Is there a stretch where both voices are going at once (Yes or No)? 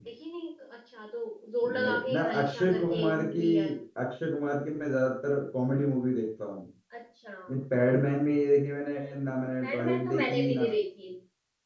Yes